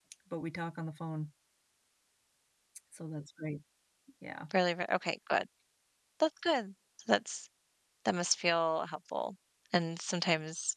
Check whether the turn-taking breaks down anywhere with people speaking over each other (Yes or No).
No